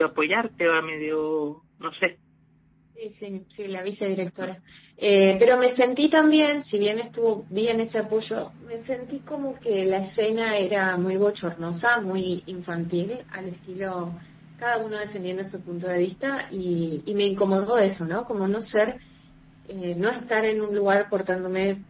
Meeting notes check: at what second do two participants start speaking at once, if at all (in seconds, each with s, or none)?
none